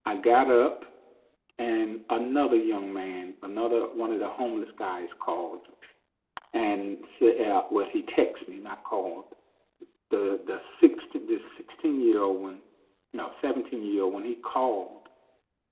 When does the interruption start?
none

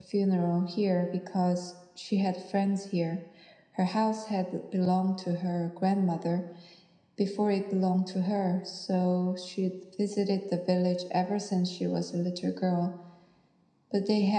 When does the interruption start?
none

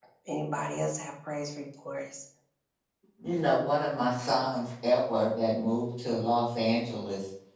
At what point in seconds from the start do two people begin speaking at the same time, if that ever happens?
none

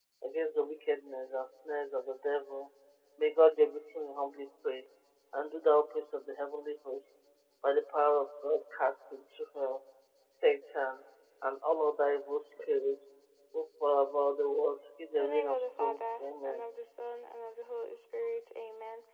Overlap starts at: 15.2 s

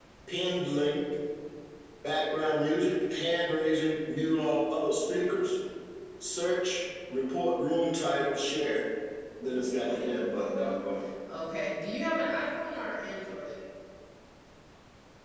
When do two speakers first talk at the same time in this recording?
9.5 s

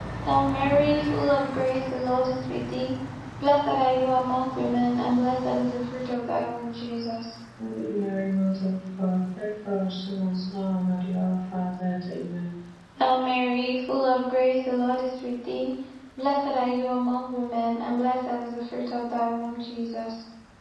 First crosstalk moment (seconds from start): none

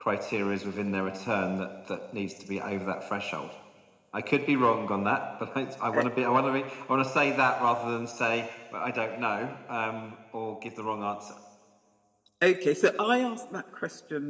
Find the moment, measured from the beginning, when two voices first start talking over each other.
none

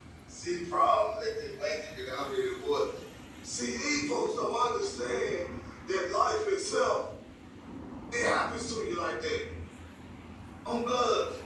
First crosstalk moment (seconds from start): none

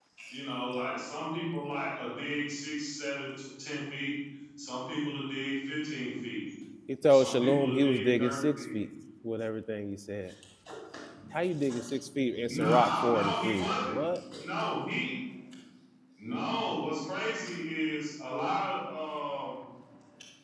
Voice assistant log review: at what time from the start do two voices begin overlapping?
7.1 s

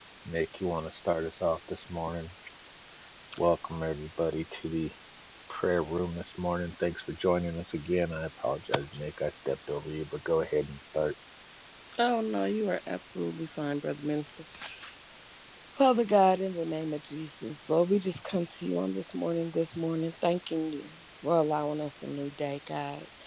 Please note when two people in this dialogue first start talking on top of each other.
none

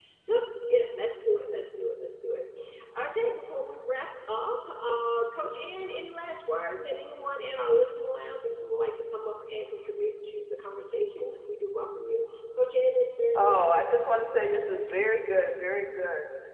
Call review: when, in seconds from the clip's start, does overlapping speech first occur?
13.3 s

